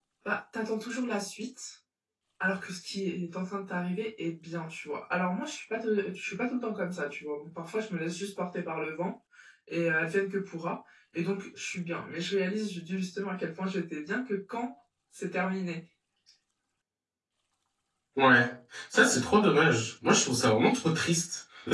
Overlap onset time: none

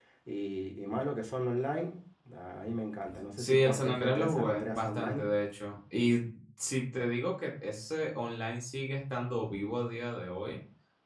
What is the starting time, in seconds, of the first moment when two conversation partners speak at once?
3.4 s

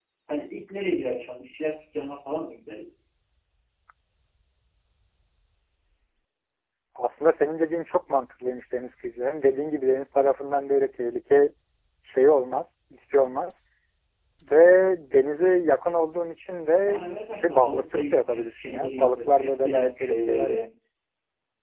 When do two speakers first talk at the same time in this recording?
16.9 s

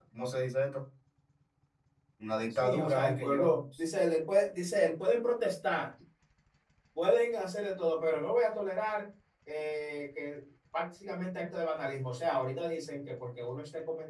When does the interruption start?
2.5 s

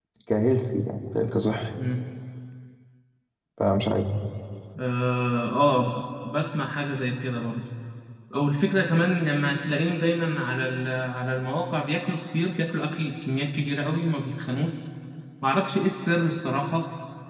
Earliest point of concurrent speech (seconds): none

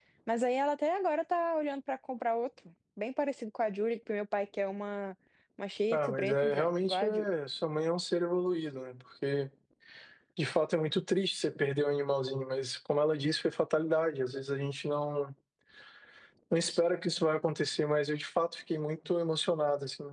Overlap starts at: 5.9 s

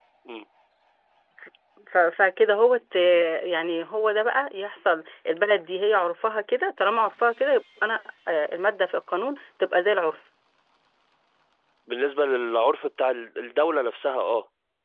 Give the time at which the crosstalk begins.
none

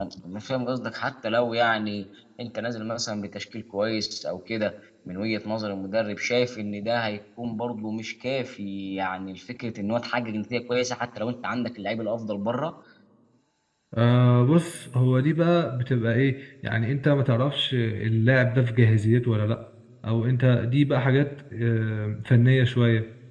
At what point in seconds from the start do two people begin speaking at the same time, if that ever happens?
none

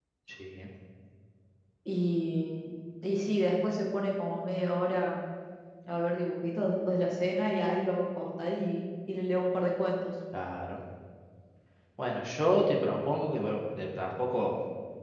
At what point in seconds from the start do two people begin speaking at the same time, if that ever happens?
none

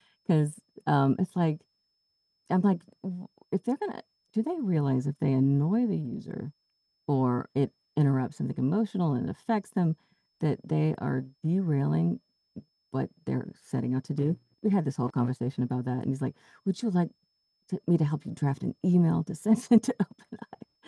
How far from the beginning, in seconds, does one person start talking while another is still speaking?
none

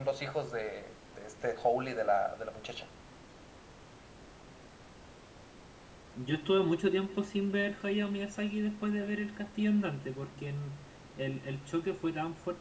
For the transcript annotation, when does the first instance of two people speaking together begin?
none

